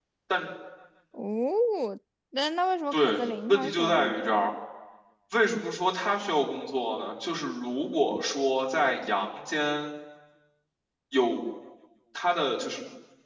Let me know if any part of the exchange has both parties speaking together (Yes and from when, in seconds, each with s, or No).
Yes, from 2.9 s